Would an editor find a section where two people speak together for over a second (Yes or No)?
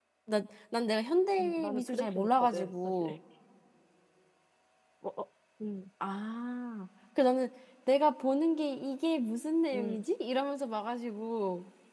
Yes